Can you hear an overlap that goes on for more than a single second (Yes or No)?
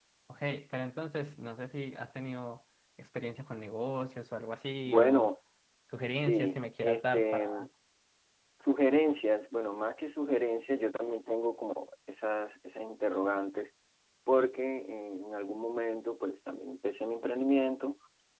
Yes